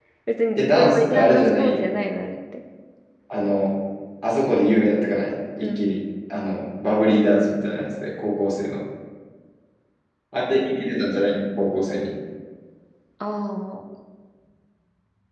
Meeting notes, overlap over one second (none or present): present